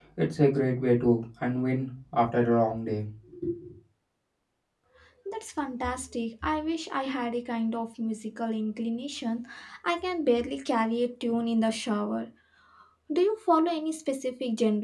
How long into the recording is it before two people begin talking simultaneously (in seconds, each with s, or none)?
none